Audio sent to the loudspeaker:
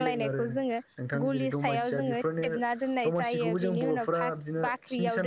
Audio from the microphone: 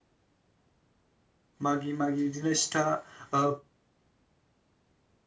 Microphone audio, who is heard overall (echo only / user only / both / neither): user only